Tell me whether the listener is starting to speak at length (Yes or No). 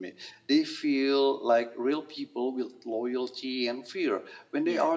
No